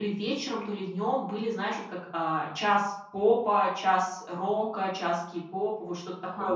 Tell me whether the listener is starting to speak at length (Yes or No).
No